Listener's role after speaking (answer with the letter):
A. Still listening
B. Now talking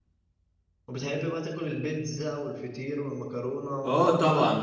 B